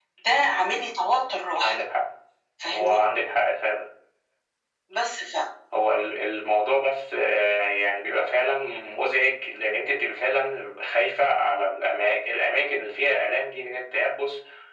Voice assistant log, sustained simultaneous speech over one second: none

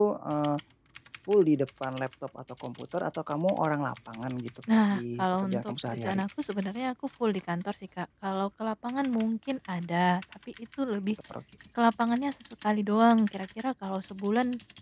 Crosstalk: present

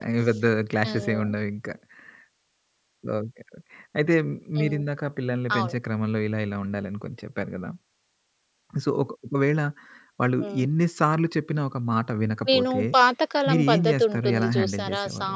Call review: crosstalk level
present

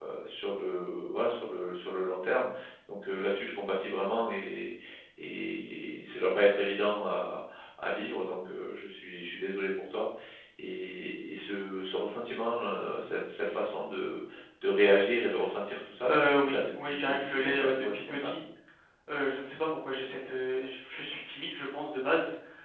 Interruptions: present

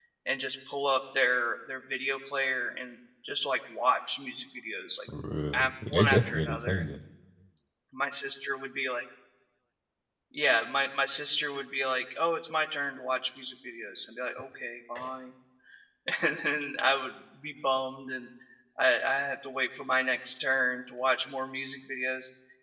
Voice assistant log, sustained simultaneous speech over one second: present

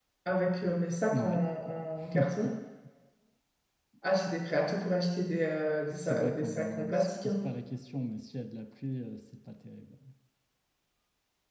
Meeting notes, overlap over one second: present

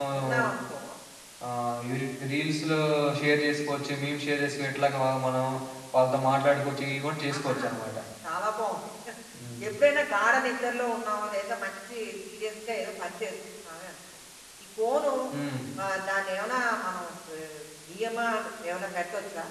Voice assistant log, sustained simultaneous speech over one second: none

